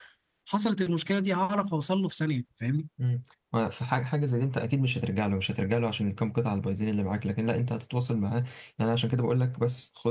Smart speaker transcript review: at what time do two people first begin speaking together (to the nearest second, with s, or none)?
none